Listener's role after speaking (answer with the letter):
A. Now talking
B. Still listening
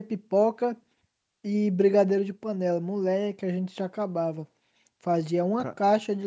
B